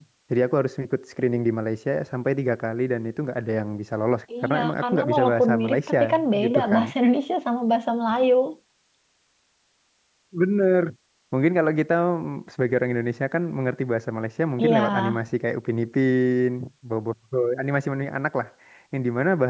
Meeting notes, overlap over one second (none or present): present